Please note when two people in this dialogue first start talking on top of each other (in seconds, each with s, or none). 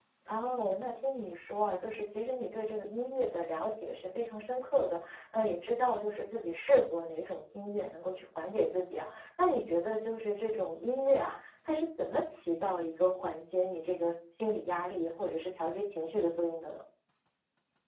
none